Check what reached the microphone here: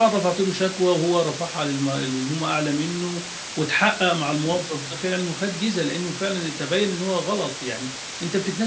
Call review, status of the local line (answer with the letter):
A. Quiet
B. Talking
B